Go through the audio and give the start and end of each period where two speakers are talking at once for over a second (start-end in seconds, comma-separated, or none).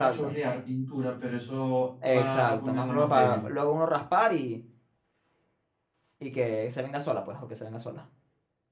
2.1-3.5